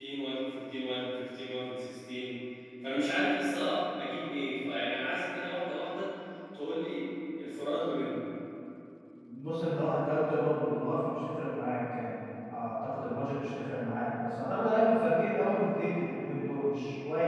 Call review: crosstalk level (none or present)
none